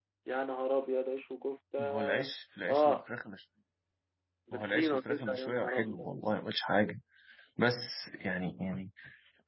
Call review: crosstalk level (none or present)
present